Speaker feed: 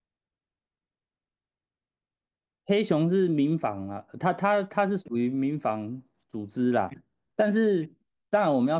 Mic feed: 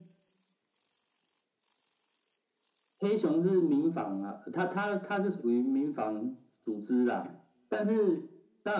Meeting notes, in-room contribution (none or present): none